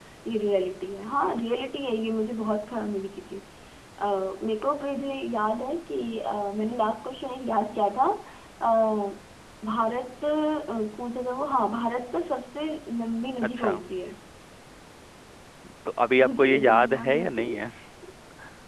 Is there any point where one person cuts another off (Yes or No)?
Yes